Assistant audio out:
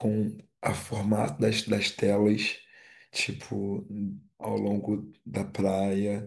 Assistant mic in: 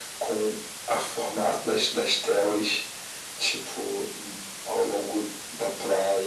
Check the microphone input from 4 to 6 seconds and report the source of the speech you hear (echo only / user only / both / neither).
echo only